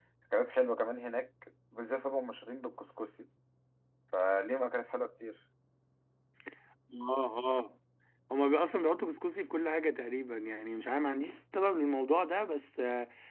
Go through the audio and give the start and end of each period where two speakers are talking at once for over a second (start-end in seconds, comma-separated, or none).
none